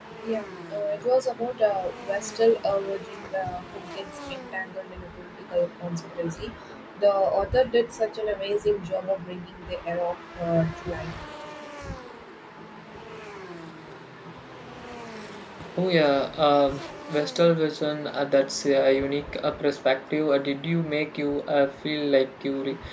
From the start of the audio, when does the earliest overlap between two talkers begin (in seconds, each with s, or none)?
none